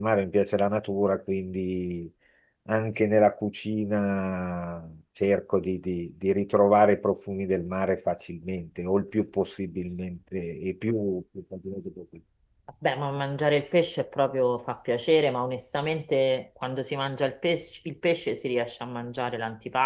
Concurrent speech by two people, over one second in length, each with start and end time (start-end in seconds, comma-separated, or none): none